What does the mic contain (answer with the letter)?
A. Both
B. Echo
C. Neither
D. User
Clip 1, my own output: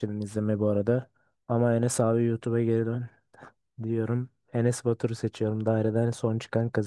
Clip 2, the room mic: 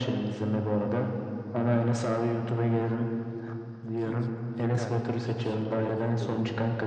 A